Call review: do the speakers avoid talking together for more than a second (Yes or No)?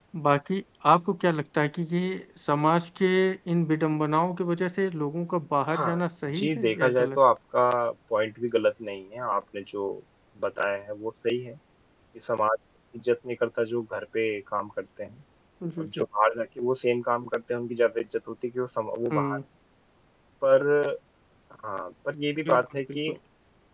No